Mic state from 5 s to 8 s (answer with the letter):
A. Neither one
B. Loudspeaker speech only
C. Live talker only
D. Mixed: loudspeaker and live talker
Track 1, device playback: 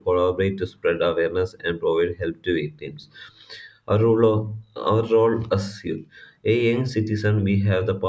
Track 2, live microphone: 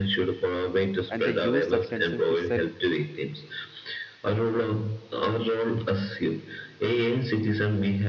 B